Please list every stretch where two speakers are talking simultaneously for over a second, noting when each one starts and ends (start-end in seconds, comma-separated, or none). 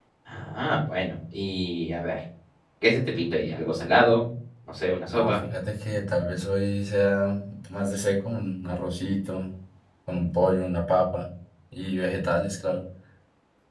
none